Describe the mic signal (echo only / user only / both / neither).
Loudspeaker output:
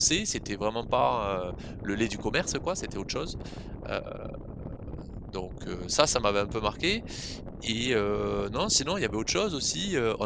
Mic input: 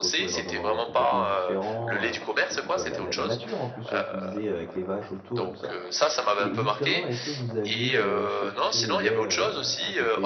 both